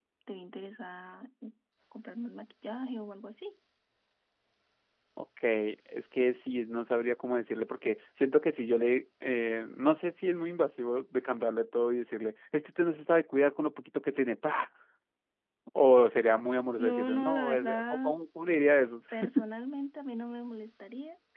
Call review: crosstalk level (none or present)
present